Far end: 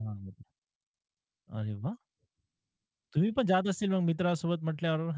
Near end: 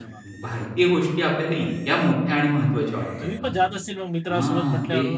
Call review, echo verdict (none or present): present